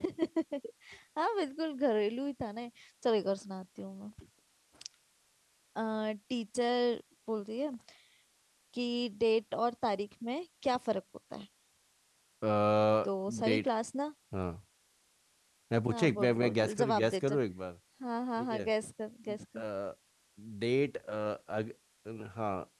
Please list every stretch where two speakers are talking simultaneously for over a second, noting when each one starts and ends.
15.9-17.4

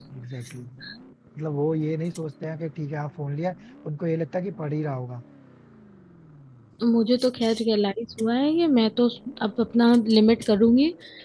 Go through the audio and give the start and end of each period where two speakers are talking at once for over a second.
none

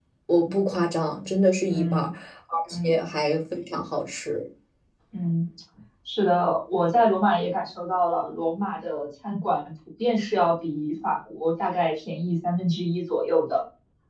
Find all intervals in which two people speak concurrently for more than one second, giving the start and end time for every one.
none

